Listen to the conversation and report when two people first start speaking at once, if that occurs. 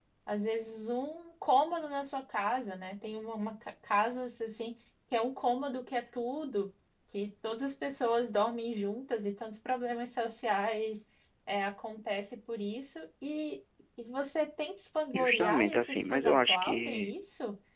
15.1 s

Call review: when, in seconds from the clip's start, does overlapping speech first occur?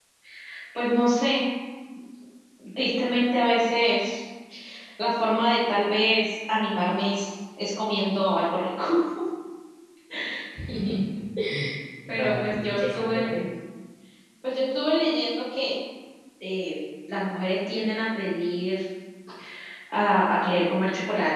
12.1 s

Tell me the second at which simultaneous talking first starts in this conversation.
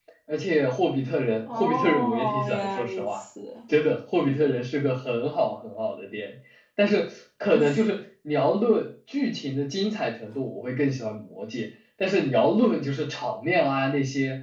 1.5 s

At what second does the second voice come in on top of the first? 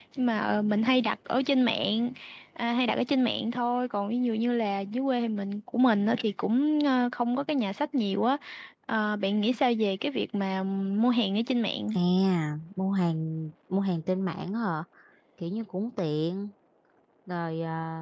none

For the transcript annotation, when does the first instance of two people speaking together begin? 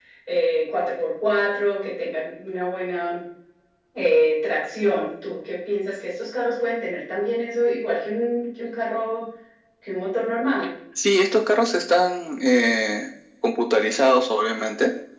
none

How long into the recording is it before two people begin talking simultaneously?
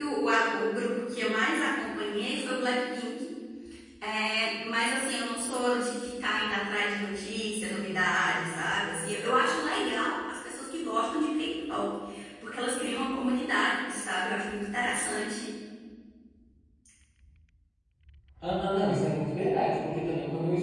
none

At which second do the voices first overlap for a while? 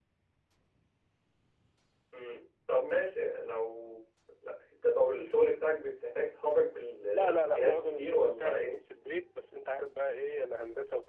7.1 s

